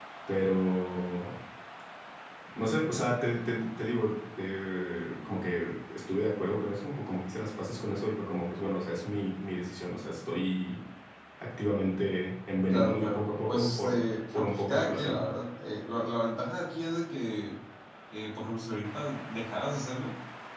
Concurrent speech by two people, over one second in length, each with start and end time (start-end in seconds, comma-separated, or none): 12.7-15.2